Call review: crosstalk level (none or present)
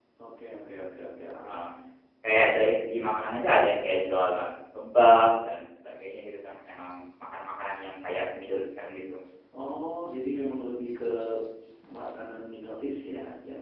none